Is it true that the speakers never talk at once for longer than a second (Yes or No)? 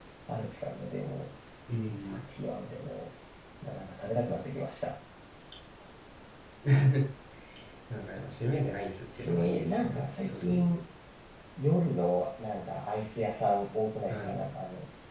No